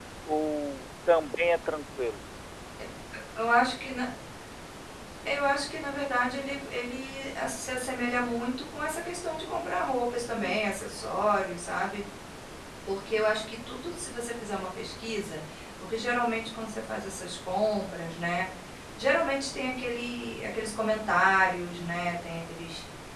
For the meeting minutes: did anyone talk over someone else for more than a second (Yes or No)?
No